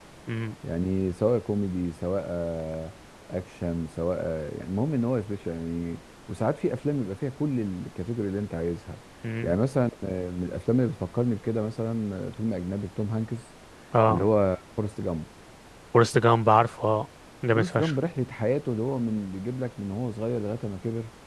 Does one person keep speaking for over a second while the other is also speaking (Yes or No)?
No